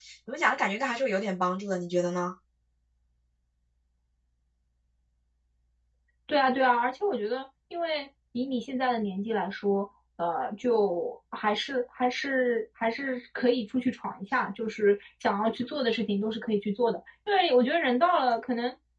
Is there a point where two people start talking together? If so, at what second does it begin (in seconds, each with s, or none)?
none